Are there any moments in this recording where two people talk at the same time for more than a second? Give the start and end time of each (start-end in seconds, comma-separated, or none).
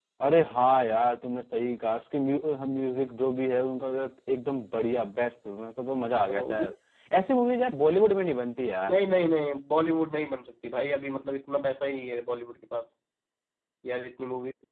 none